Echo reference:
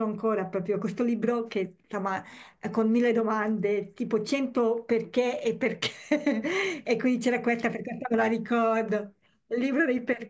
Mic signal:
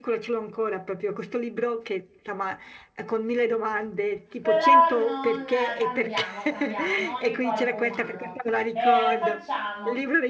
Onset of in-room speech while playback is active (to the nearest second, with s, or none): 4 s